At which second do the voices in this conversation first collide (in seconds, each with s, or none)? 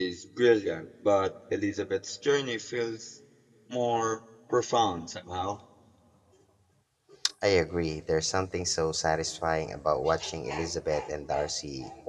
none